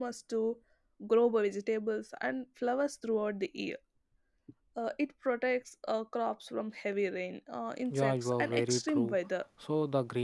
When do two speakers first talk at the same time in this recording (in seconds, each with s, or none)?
7.9 s